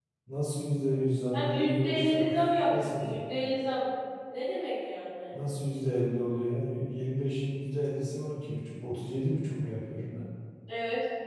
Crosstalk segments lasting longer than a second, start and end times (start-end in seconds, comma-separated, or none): 1.3-3.2